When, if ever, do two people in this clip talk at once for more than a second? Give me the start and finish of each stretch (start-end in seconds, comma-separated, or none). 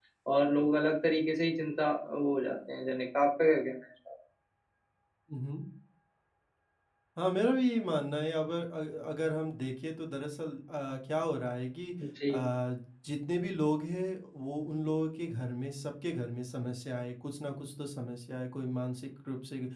none